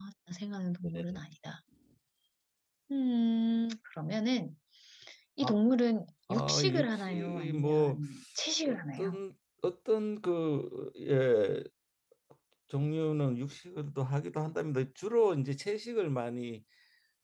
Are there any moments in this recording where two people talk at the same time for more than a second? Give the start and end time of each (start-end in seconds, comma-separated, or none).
6.3-8.0